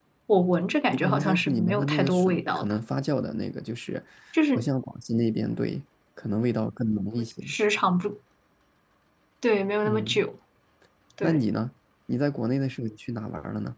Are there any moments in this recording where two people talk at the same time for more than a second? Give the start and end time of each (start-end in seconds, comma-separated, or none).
1.0-2.7